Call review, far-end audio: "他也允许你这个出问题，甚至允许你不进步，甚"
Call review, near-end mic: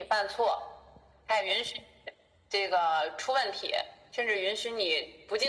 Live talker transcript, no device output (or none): none